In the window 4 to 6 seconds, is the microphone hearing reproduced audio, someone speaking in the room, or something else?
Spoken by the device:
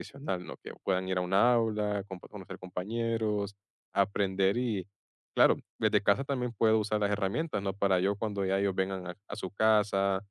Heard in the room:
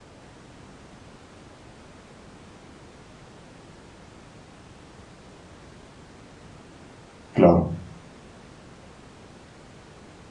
neither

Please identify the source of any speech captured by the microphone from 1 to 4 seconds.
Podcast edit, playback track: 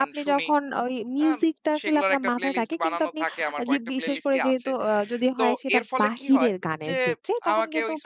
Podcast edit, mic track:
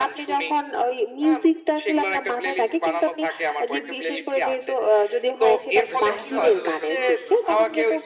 echo only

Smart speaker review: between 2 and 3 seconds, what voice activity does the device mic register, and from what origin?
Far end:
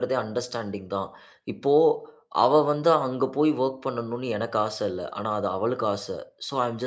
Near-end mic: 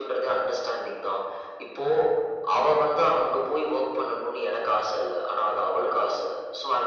echo only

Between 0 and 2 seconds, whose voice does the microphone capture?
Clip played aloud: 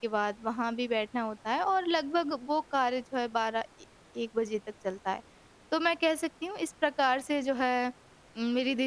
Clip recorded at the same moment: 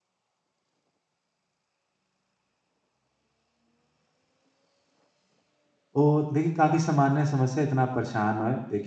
neither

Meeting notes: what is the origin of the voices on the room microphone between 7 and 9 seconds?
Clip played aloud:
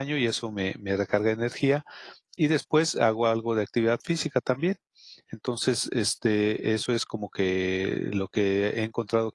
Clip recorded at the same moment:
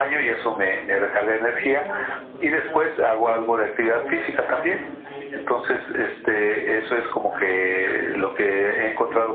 both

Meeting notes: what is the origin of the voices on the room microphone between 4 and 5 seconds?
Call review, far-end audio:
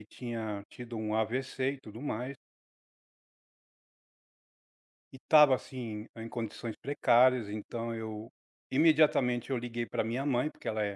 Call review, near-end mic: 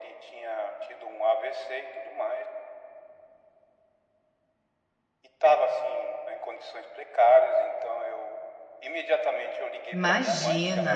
neither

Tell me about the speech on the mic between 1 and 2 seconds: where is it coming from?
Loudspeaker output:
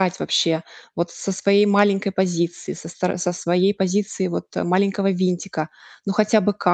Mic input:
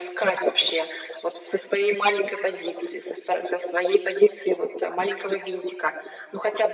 echo only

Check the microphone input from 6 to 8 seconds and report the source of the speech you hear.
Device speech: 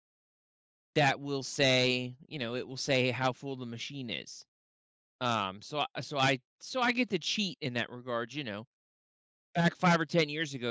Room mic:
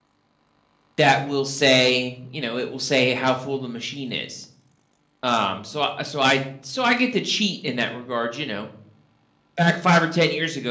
echo only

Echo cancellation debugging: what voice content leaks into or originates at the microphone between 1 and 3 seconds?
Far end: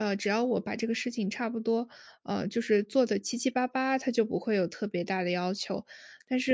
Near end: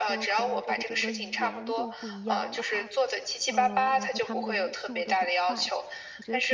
both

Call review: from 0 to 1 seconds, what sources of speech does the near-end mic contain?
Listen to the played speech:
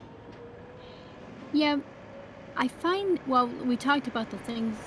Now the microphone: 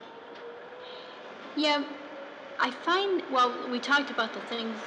neither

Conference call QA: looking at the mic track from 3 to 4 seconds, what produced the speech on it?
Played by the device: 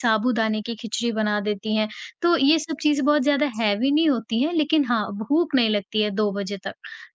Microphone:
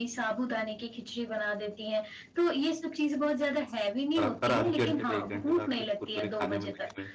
echo only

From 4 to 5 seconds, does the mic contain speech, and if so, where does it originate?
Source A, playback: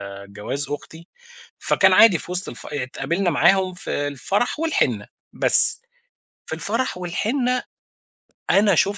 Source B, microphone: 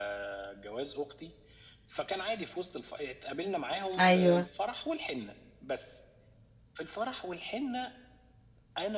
both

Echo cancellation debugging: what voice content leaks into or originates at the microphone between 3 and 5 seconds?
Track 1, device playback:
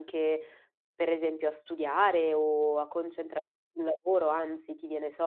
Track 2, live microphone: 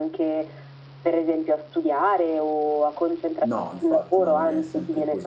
both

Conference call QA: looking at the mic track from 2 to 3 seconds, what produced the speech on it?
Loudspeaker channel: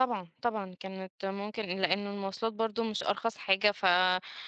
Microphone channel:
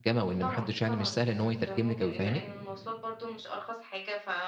both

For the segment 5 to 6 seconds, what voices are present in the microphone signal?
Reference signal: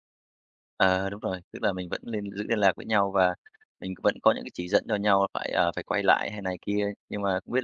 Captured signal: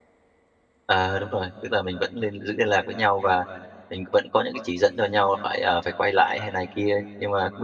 echo only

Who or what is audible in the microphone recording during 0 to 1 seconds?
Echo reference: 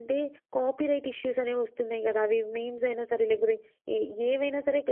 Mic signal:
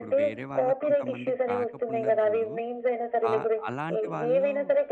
both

